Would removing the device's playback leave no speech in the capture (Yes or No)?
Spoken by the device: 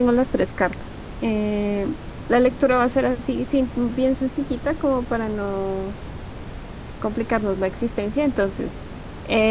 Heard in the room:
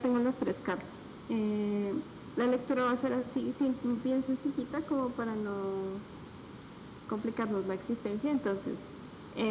Yes